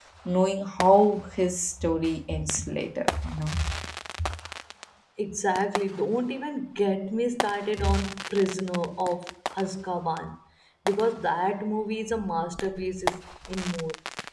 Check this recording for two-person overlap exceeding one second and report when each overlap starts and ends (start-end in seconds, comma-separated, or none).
none